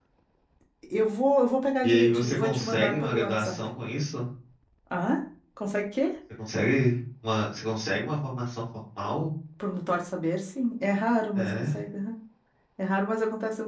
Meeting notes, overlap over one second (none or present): present